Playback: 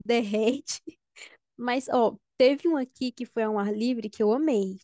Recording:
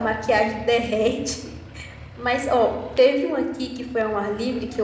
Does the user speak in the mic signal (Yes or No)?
No